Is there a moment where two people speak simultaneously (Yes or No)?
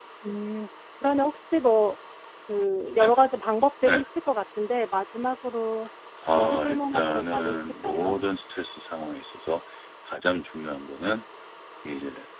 Yes